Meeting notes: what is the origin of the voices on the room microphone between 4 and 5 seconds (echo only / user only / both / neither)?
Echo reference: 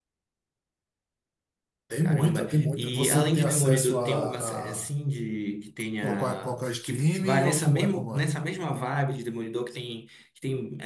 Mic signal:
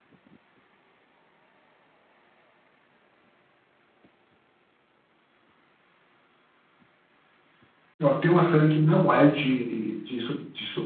neither